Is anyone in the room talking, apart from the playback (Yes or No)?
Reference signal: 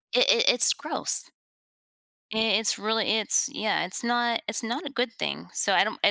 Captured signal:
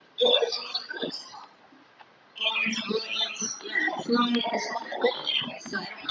No